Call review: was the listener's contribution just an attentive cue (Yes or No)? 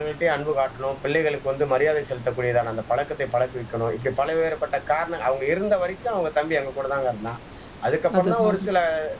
Yes